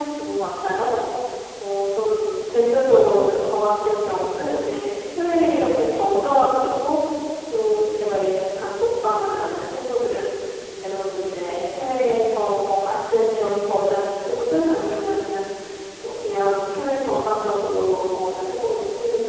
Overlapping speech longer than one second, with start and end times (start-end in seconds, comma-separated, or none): none